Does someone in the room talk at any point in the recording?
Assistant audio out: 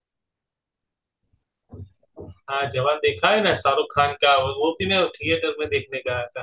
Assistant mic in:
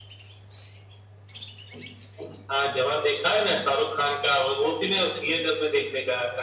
No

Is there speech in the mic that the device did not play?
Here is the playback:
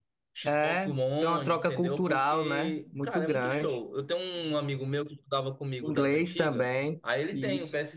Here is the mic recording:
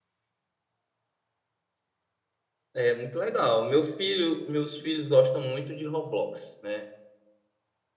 Yes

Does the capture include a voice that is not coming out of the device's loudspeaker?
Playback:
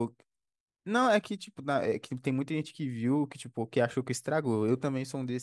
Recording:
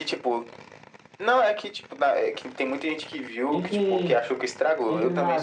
Yes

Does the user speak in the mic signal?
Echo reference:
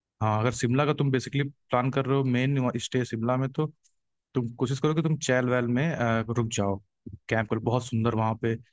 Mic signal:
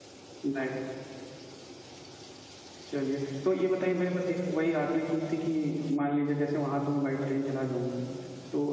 Yes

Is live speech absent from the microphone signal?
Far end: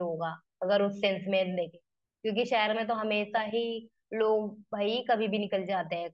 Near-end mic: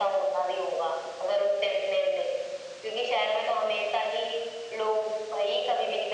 Yes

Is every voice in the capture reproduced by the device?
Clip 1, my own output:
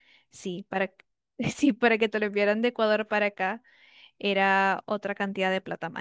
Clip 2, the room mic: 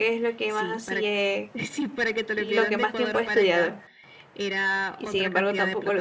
No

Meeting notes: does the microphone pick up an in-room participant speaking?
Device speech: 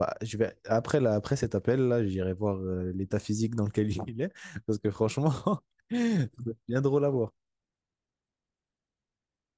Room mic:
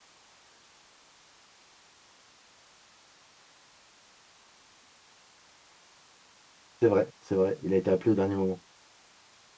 Yes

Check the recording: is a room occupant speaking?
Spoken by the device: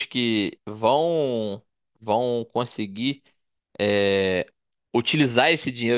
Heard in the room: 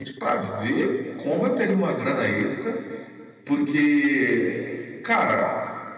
Yes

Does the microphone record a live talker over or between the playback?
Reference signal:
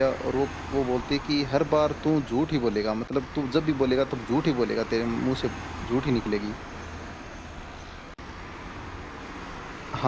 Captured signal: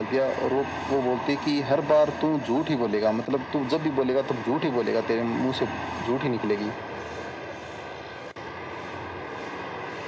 No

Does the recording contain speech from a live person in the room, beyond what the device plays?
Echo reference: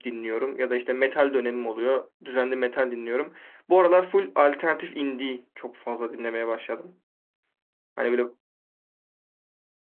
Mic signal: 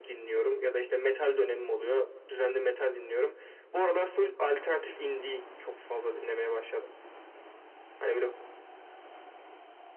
No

